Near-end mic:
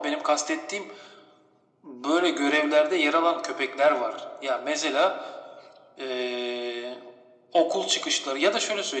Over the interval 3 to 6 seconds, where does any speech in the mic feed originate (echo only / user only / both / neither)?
echo only